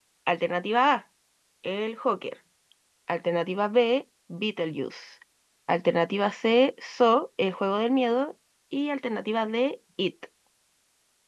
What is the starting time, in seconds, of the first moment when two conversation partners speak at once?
none

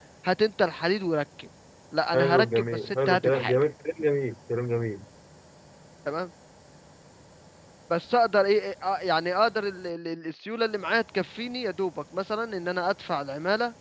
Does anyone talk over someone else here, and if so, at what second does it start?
2.1 s

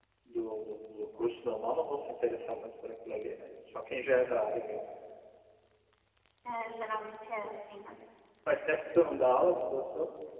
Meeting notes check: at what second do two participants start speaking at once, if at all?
none

